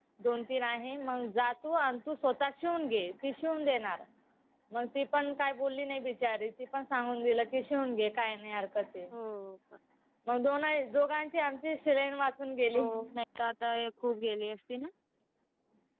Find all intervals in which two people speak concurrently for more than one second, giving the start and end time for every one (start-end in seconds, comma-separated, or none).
none